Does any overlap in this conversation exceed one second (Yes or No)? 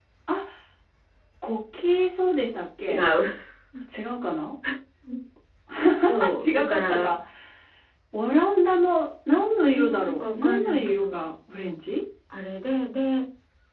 Yes